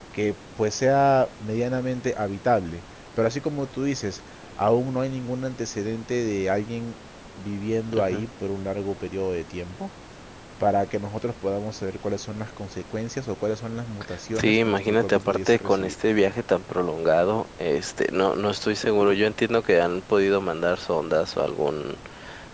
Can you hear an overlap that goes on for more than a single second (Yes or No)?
Yes